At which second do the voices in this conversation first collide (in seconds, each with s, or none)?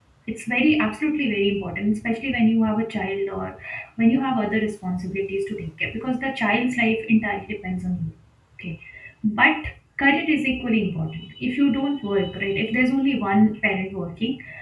none